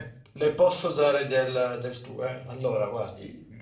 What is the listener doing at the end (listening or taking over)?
listening